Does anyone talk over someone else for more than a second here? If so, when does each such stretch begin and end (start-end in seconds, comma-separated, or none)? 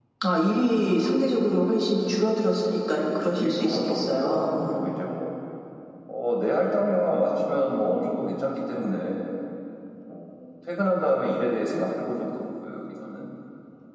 2.9-4.9